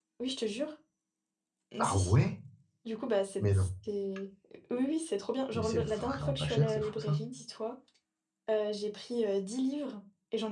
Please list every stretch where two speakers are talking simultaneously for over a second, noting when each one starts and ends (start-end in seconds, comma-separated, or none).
5.5-7.2